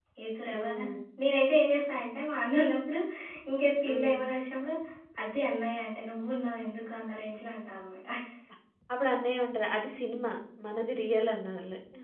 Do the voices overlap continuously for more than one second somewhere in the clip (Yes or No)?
No